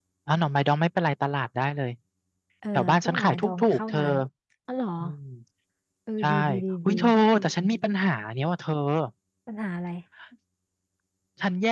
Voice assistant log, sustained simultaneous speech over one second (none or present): present